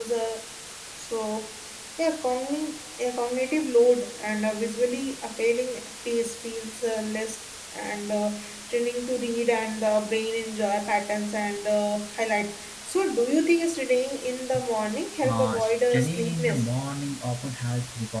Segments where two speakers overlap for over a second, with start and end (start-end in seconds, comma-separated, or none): 15.2-16.7